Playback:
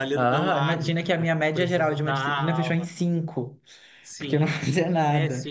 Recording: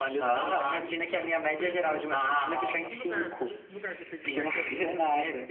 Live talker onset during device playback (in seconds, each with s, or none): 0.9 s